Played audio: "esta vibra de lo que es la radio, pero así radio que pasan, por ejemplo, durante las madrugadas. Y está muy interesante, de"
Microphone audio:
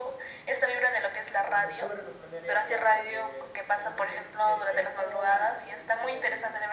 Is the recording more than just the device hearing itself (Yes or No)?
Yes